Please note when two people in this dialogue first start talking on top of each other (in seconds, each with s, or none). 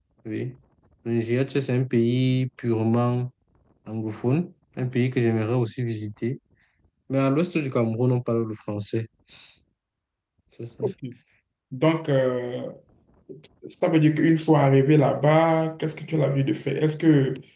none